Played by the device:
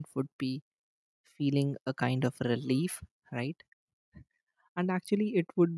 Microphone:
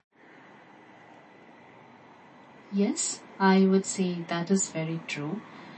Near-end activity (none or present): present